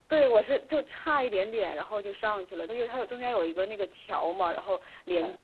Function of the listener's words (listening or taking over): listening